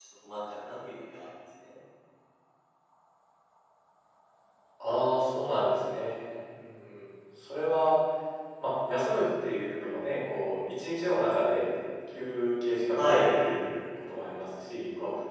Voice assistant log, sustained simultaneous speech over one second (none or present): none